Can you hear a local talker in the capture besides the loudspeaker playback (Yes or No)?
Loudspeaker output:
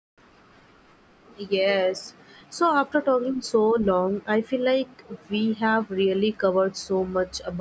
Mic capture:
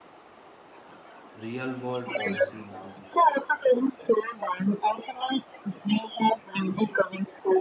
Yes